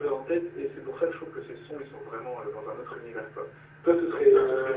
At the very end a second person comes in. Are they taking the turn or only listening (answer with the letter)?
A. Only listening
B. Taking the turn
A